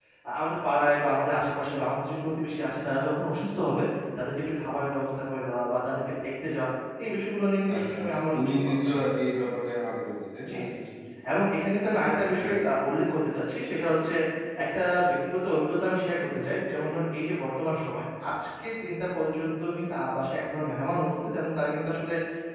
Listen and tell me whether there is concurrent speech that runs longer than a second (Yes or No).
Yes